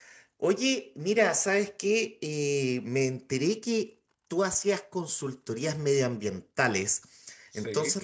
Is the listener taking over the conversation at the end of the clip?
No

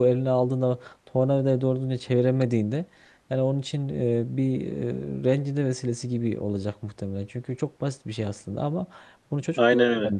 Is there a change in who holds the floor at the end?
No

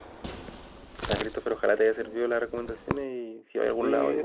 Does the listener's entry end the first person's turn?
Yes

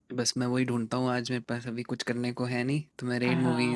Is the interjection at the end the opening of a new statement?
Yes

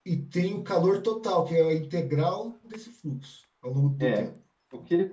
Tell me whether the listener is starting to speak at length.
Yes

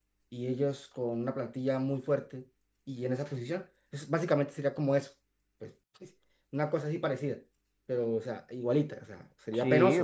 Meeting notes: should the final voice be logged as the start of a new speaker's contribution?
Yes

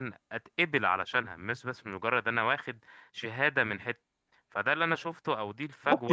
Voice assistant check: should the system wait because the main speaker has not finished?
No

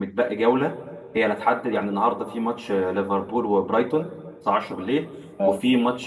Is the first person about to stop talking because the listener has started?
No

